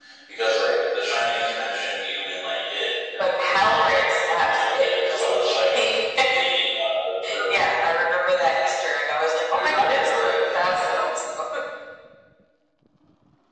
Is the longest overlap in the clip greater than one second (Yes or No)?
Yes